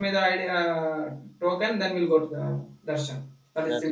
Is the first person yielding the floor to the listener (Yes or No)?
Yes